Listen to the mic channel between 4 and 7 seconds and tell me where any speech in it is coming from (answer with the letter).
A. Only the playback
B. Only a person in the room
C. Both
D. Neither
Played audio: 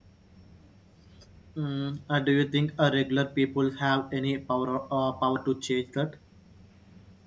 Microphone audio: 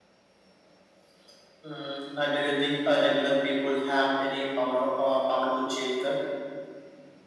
A